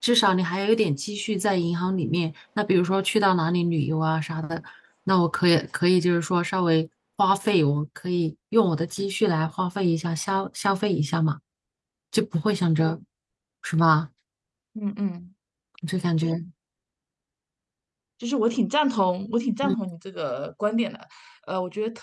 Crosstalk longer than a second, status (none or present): none